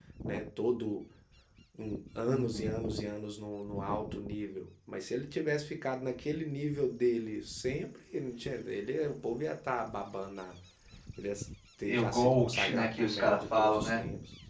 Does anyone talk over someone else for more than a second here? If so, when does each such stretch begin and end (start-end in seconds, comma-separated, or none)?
11.8-14.0